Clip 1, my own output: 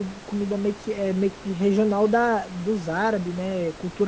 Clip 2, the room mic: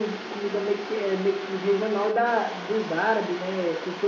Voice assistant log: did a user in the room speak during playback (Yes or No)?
No